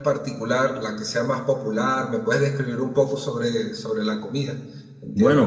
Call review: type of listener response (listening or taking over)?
taking over